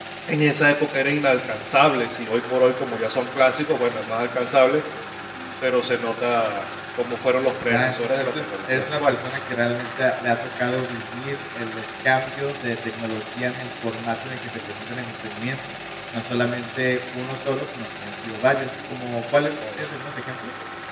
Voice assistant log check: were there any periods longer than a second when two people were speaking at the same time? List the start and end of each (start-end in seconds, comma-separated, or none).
7.7-9.2